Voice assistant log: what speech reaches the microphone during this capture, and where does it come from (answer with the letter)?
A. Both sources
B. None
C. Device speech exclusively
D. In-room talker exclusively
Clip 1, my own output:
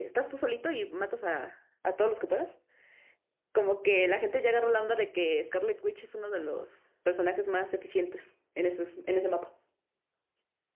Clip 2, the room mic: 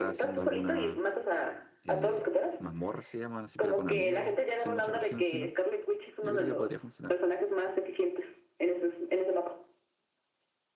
A